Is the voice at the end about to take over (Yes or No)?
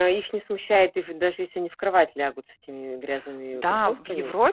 Yes